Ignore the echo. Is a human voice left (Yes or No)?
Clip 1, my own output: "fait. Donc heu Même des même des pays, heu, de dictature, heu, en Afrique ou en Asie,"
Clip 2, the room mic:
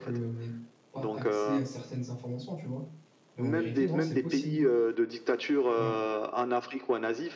Yes